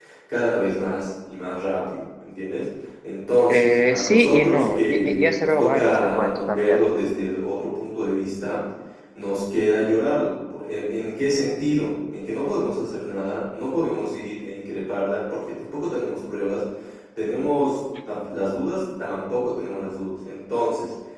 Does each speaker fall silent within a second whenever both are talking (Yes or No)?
No